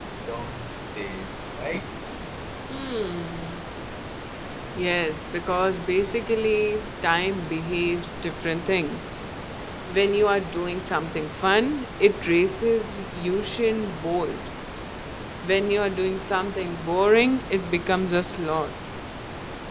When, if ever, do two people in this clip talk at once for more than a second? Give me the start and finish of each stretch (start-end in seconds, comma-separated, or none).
none